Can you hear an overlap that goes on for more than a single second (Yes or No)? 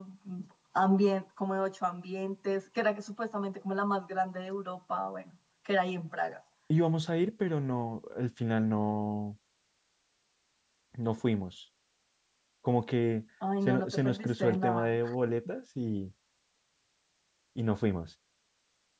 Yes